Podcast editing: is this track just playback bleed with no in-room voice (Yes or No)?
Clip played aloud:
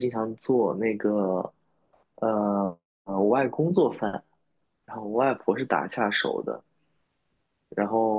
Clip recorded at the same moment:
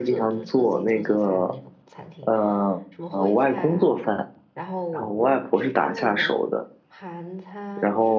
No